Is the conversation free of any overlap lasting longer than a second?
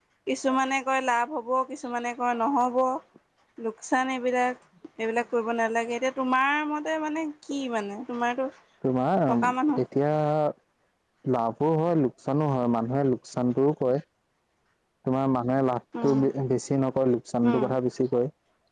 Yes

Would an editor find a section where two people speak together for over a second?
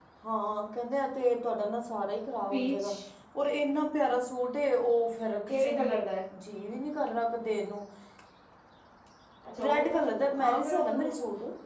Yes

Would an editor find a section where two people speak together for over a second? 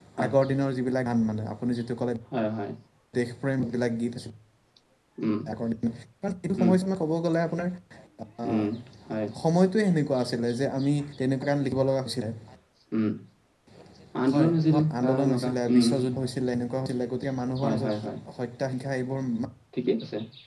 Yes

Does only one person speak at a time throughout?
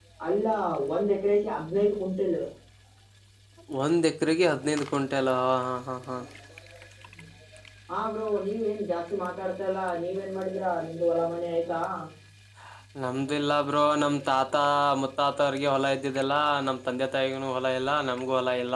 Yes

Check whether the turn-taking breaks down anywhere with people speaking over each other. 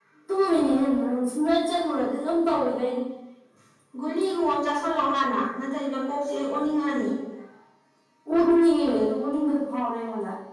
No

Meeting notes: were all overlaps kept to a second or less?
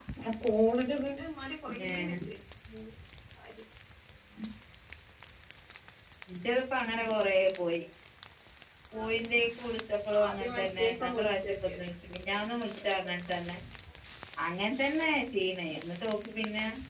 No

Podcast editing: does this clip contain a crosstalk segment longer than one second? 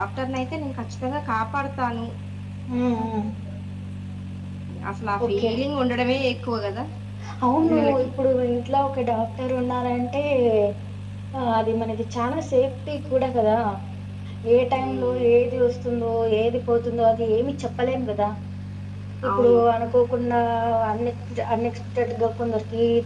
No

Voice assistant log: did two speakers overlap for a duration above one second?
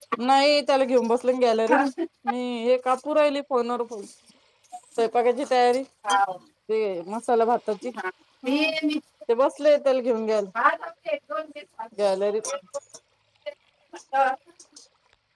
No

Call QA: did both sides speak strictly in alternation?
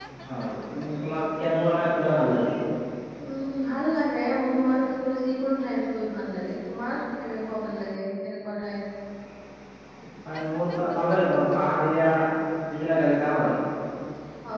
Yes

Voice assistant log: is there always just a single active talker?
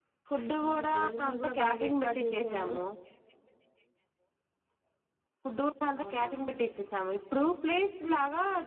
No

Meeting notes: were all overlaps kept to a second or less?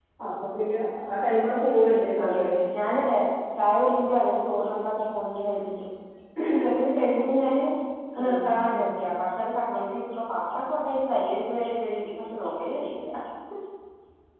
Yes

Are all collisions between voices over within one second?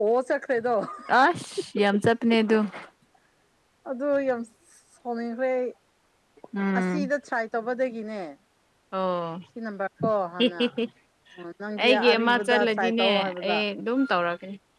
No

